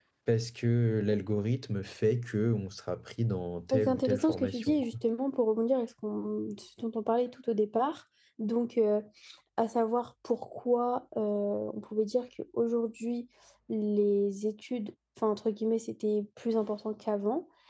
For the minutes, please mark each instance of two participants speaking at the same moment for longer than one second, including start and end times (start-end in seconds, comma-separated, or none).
3.7-5.0